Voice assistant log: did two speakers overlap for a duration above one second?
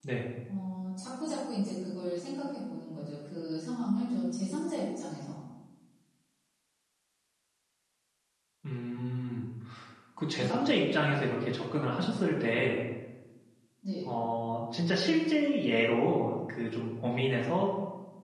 No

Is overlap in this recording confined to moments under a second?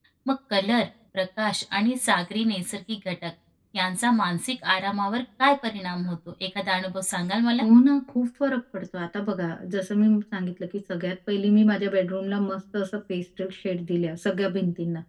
Yes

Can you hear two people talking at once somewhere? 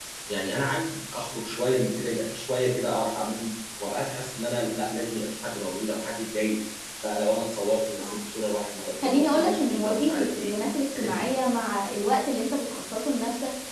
Yes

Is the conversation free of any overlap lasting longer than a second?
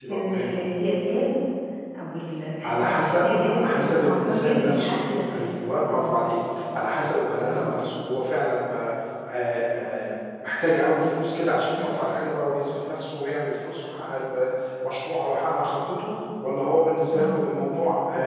No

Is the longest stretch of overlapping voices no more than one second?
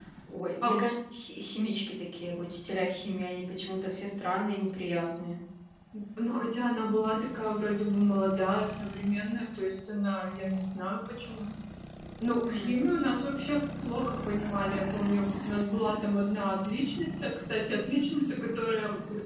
Yes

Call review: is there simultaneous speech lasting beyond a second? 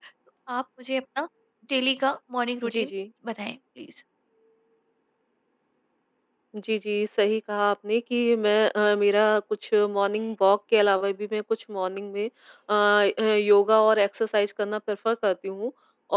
No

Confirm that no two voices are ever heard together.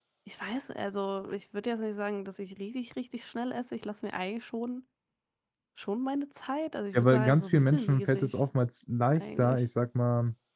No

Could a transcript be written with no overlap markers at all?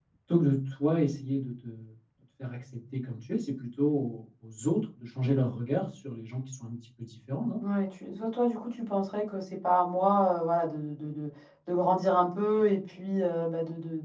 Yes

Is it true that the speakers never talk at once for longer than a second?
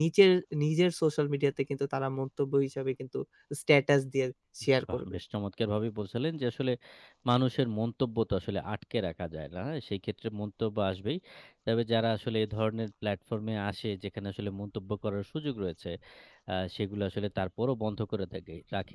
Yes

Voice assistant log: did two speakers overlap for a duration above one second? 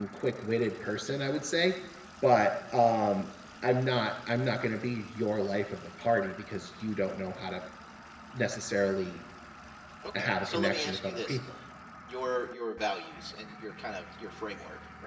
Yes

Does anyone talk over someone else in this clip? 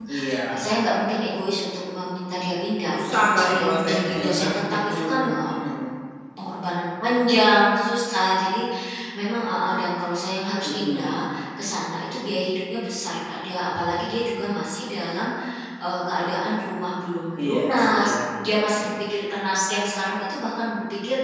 Yes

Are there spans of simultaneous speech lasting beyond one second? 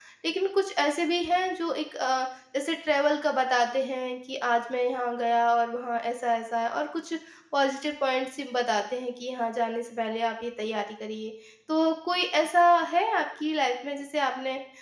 No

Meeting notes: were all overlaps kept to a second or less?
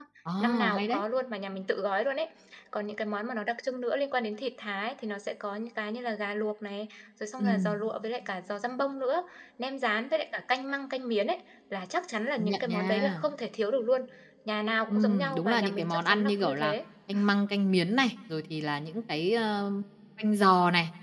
No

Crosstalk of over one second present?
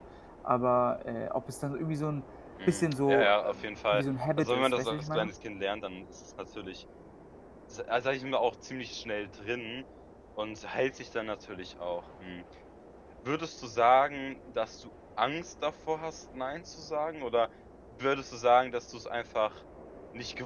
Yes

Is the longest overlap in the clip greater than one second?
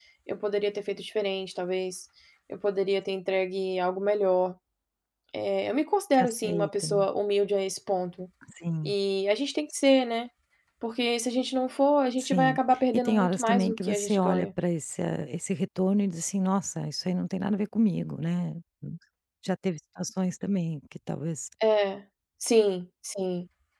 Yes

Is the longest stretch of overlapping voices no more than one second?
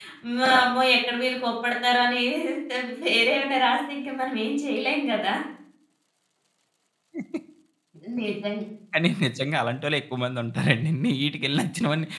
Yes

